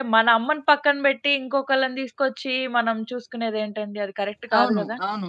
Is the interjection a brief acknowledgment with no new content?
No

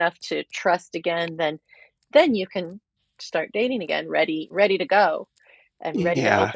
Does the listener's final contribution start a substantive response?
Yes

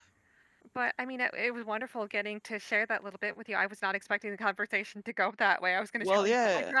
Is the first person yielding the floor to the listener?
Yes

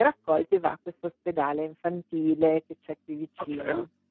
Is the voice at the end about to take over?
Yes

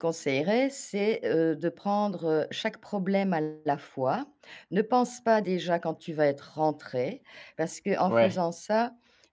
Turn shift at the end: No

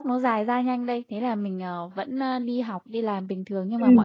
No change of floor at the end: Yes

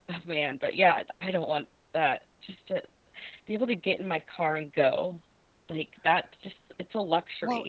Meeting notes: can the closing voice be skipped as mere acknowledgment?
No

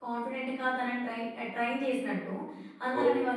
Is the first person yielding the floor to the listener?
No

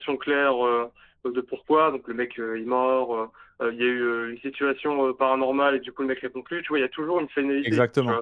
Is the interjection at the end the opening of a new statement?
Yes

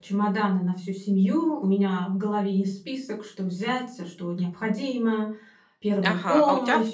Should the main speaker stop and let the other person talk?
Yes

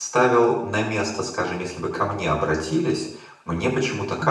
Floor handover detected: No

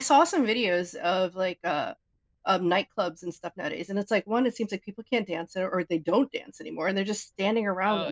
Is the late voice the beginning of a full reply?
Yes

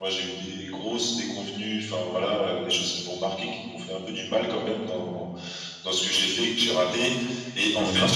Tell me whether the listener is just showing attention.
Yes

